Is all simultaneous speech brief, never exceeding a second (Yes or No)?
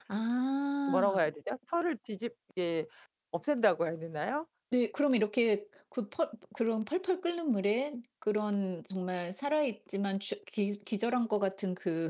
Yes